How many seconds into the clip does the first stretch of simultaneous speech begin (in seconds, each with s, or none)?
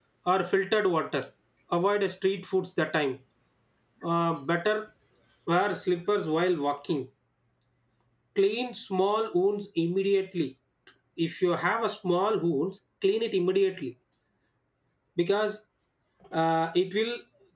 none